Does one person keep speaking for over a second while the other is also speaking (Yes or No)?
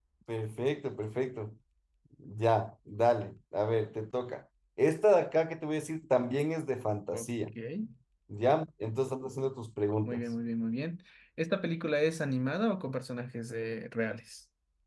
No